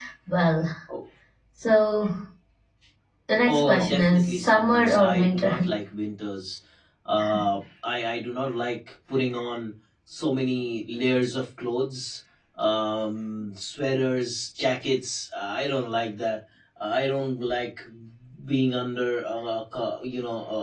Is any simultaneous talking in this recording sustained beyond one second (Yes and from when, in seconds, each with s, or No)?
Yes, from 3.5 s